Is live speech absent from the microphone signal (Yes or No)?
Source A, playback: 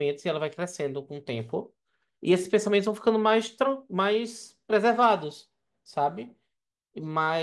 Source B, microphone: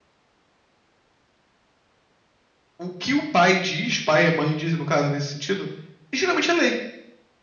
No